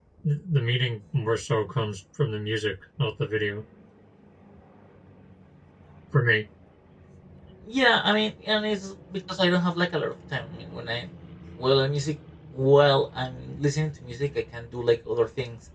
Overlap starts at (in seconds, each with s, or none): none